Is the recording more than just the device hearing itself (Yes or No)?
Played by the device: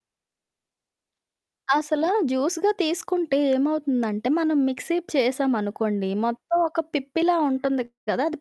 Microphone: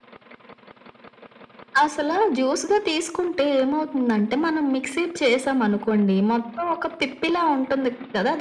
No